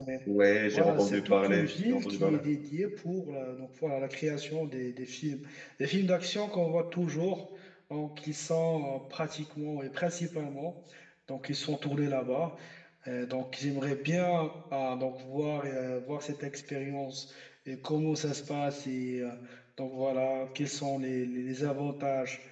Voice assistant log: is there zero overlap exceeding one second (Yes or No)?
No